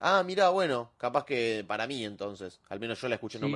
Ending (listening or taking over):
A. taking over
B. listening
A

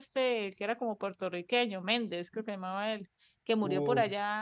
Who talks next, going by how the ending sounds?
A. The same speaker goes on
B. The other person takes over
A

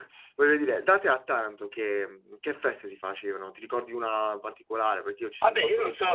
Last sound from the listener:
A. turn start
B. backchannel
A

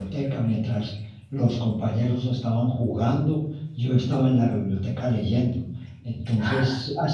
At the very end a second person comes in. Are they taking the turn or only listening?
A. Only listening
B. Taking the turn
A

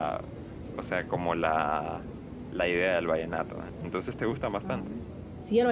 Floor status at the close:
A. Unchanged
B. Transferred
B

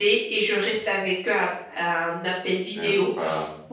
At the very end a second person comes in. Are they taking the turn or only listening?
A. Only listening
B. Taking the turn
A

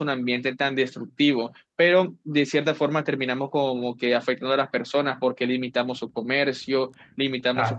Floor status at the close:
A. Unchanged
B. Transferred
B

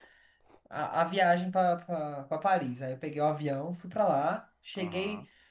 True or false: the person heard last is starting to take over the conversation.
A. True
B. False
B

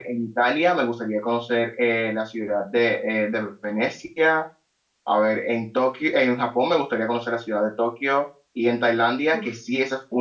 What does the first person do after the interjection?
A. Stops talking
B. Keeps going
B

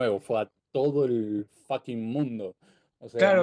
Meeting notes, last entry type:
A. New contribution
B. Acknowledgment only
A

